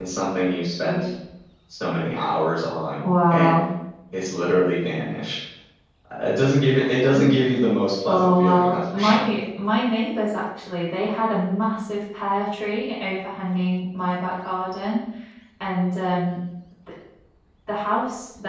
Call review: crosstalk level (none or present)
present